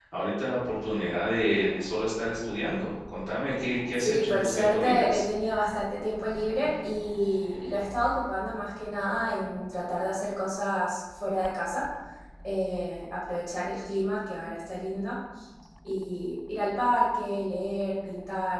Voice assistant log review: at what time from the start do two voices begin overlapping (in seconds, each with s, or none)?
3.9 s